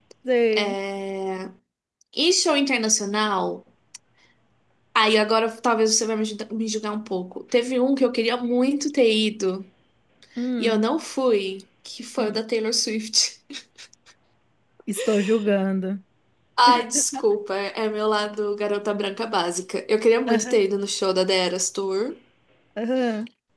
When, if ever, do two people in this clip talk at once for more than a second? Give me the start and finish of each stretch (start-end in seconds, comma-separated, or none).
none